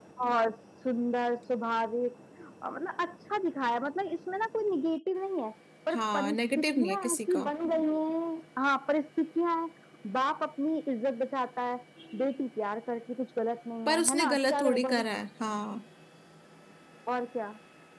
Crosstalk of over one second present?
Yes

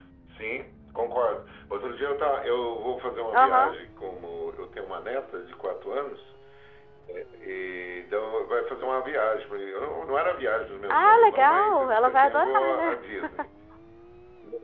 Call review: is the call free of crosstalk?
No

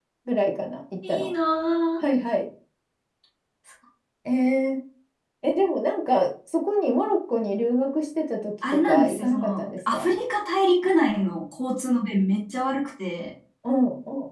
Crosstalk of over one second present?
Yes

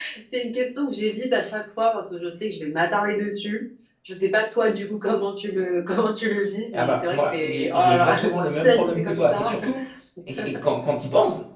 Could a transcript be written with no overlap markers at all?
No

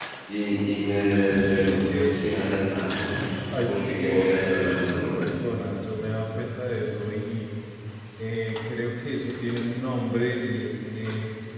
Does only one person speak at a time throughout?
No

